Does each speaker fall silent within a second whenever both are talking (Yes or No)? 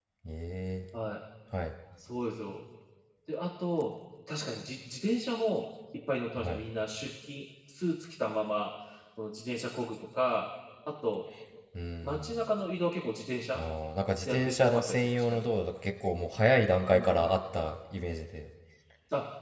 No